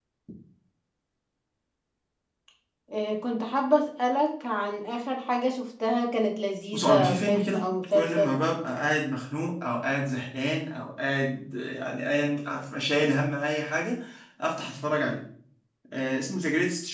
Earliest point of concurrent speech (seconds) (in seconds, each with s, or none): 6.7 s